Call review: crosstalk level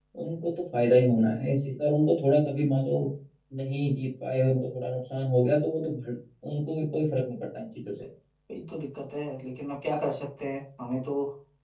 none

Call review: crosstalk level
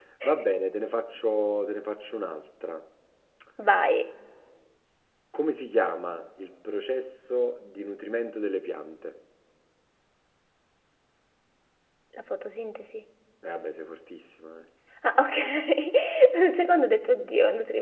none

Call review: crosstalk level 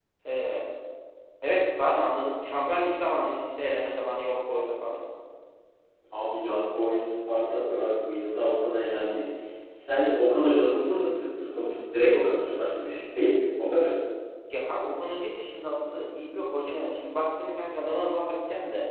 none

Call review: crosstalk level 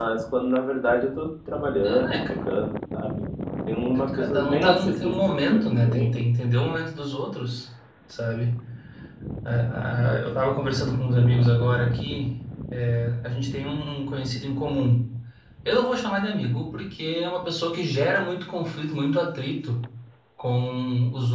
present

